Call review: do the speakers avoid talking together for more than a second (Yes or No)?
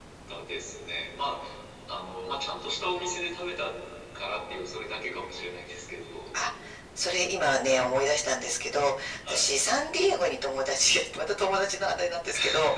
Yes